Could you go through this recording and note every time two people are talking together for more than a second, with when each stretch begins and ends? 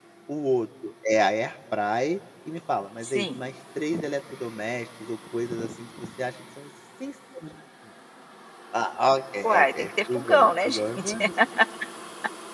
9.4-11.1

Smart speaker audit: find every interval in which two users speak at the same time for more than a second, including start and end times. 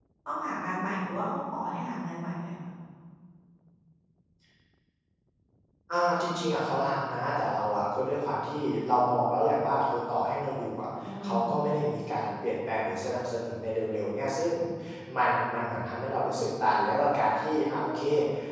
none

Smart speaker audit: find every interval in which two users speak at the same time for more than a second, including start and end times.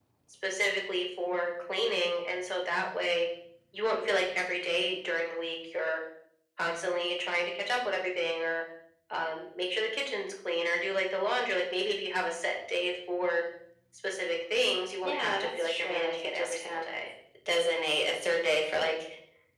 15.0-16.8

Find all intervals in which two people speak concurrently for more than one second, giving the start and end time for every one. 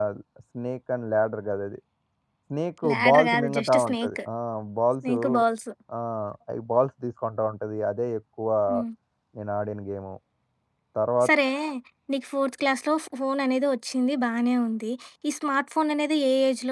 2.9-4.2

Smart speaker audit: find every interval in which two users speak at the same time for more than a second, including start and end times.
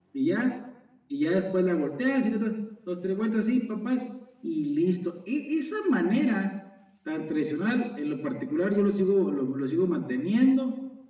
none

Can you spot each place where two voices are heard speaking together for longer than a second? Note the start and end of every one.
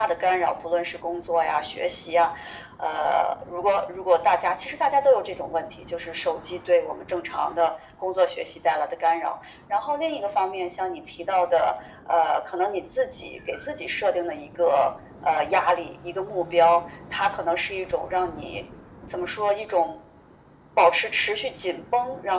none

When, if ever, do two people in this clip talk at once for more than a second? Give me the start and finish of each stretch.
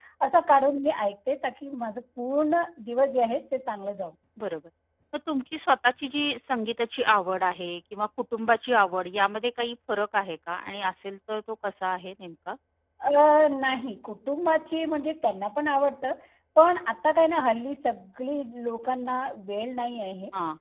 none

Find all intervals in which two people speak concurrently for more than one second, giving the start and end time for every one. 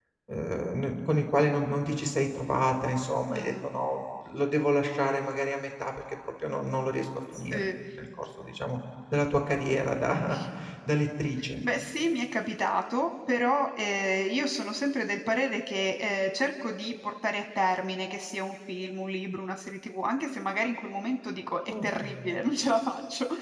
none

